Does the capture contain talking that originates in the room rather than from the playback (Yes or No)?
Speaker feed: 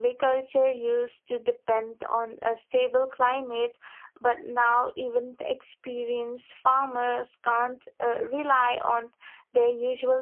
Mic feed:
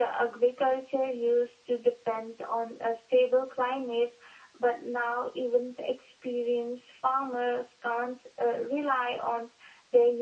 No